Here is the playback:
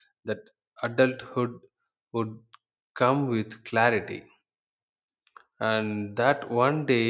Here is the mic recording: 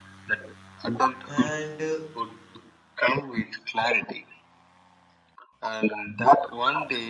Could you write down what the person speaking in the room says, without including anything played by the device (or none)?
and uh,